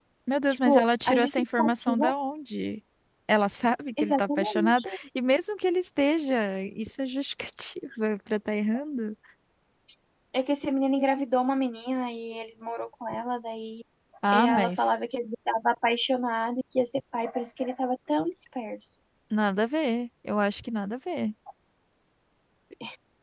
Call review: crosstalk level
present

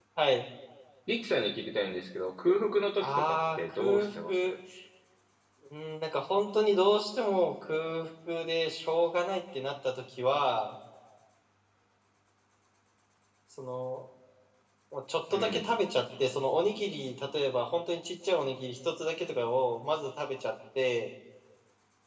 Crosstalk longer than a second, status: present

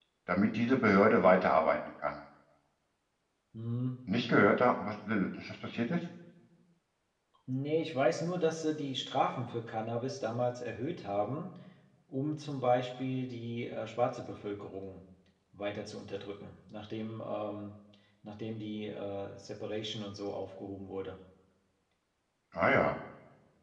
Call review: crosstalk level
none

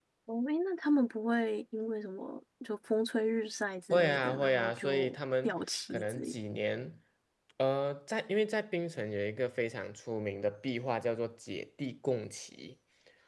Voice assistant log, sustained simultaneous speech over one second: present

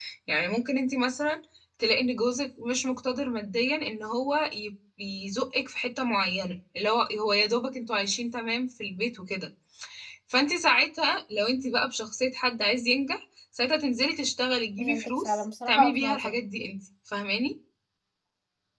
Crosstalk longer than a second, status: present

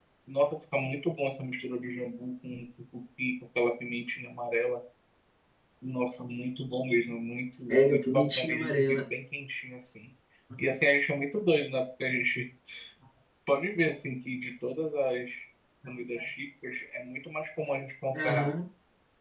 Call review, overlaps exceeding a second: present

